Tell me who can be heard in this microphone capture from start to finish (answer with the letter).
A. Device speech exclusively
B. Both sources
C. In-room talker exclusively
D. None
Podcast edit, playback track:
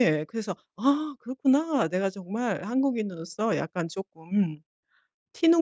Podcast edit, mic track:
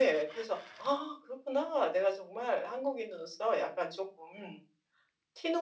A